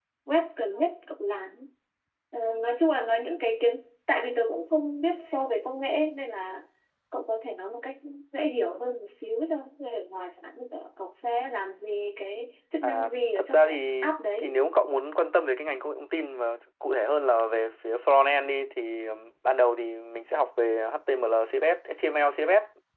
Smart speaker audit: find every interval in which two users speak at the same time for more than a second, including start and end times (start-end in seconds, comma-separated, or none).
12.8-14.6